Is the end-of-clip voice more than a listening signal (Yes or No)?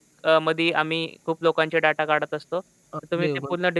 Yes